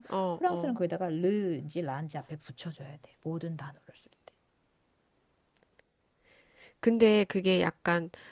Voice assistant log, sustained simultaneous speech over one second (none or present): none